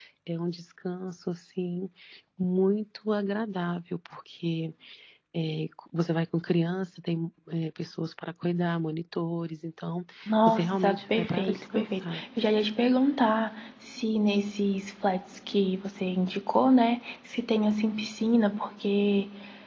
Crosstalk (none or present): present